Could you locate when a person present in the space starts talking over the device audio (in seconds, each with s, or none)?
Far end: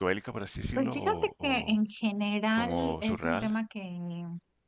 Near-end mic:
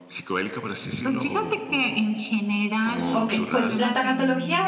3.1 s